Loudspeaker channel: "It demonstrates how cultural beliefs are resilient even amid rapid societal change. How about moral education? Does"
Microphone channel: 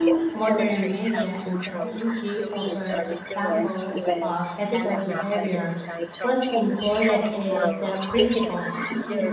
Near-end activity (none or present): present